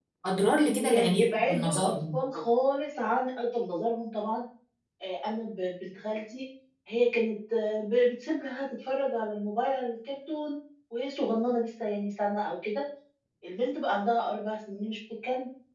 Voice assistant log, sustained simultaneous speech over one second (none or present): present